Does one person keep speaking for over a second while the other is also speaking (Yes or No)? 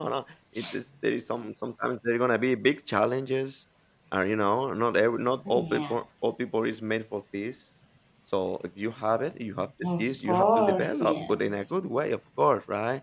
Yes